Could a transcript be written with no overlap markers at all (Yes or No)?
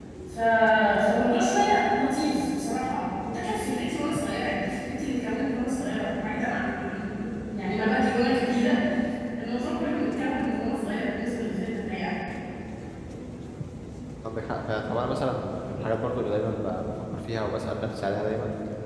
Yes